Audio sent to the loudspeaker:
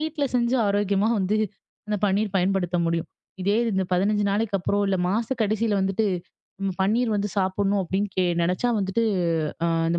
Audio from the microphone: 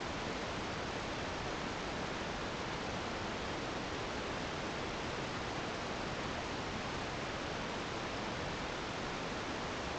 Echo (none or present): none